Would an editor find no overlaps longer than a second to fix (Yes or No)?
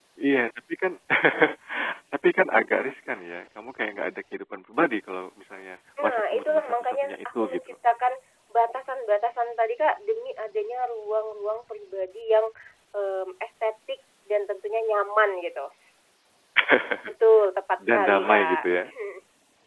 No